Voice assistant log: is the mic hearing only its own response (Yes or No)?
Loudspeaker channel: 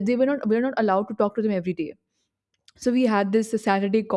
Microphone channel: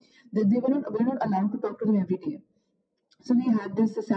Yes